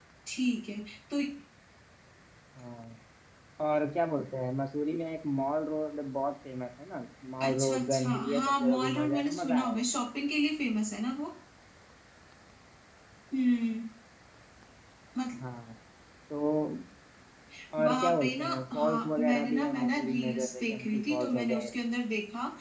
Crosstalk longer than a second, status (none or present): present